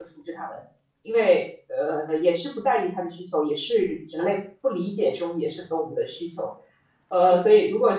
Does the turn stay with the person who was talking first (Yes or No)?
Yes